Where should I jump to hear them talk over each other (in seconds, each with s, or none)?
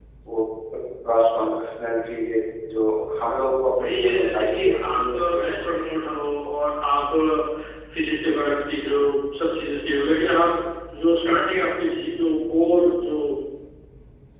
3.8 s